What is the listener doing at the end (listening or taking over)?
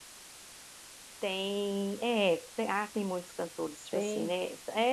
listening